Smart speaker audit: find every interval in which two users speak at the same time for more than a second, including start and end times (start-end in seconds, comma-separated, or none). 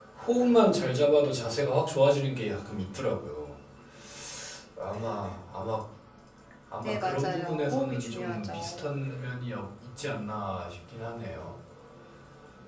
6.8-8.8